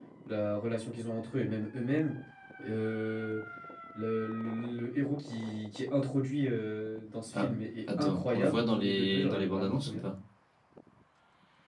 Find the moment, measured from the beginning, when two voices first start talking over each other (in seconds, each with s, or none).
8.0 s